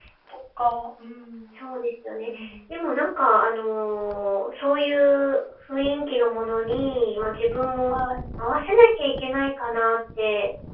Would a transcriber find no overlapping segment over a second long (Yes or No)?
Yes